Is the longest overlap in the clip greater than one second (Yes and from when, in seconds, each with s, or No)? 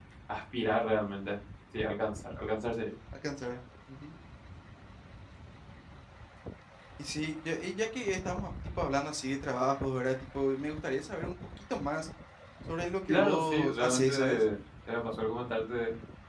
Yes, from 13.1 s